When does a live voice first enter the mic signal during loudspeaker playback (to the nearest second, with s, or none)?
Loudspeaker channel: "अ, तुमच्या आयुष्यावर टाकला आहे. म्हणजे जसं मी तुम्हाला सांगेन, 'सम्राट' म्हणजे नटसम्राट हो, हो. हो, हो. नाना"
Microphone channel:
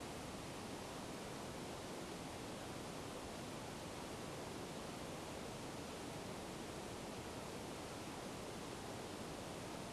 none